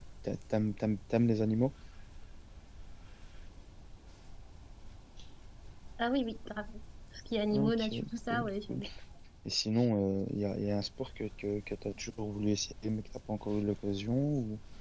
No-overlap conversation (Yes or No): No